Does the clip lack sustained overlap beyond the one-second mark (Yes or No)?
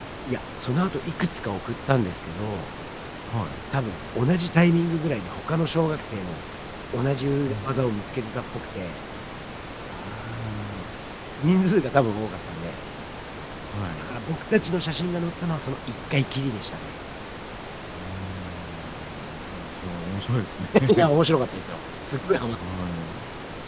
Yes